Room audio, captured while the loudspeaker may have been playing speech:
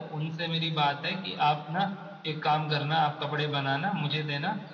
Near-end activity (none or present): none